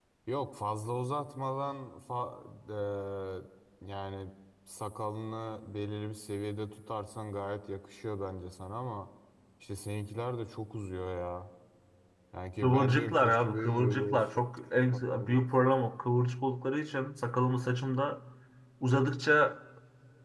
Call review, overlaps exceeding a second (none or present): present